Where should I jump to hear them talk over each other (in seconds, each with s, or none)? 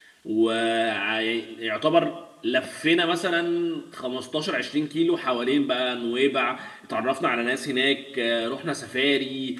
none